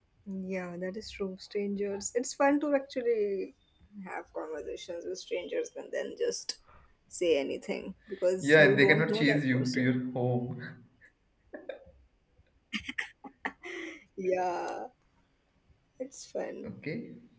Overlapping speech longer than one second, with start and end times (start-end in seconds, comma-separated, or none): 8.4-10.0